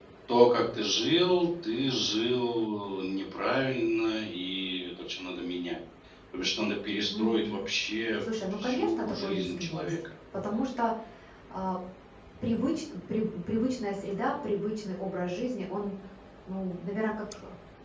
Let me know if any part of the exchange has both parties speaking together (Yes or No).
Yes